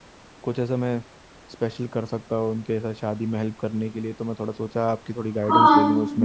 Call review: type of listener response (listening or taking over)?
taking over